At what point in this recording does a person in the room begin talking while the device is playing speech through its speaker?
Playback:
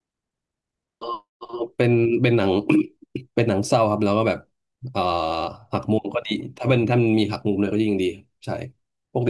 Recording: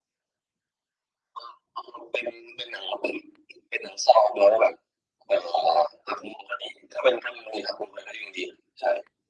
none

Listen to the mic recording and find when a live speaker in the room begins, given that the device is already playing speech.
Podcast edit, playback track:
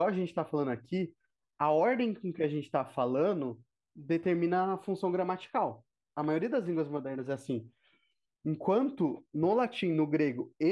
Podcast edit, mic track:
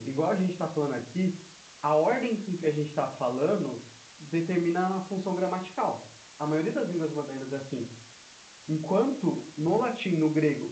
none

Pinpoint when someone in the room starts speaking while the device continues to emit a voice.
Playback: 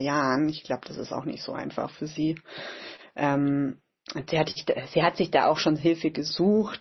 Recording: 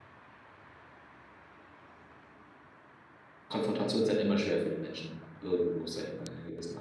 3 s

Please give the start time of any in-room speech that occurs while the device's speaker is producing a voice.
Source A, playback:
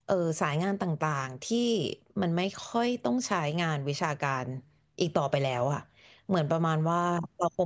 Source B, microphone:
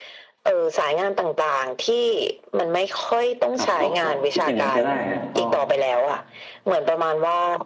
4 s

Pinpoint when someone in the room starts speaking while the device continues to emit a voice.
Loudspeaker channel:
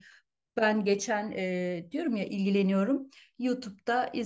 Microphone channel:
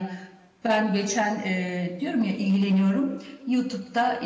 none

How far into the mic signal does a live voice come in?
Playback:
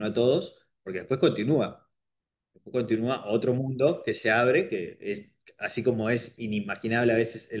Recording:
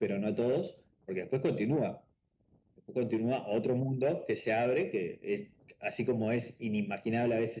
none

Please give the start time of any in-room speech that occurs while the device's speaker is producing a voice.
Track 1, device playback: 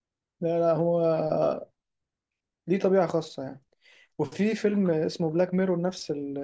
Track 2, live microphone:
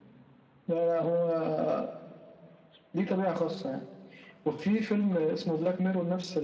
none

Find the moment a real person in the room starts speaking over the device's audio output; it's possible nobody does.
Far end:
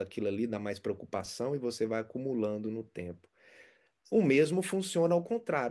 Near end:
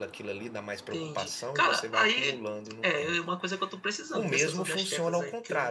1 s

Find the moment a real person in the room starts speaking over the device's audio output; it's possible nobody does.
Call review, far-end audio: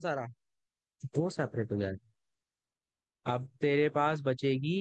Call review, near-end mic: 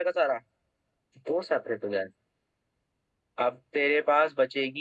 none

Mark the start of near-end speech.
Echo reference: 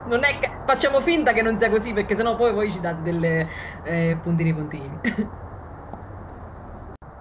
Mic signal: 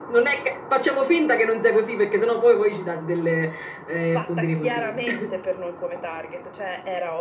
4 s

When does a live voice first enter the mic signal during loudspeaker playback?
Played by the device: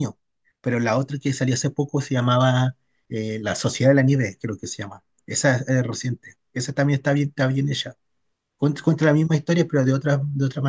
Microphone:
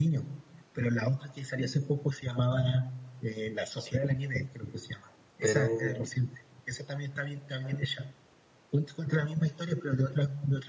5 s

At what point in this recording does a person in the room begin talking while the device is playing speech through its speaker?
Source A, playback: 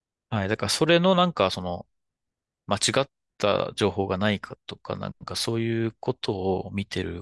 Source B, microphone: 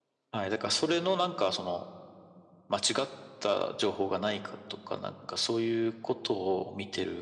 none

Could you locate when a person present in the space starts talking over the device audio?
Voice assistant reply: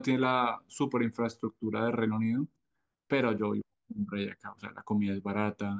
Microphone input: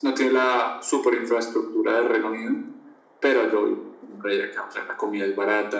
none

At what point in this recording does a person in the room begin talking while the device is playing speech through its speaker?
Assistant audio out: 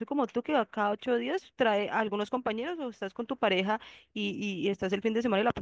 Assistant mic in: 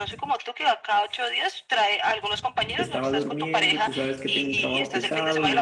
3 s

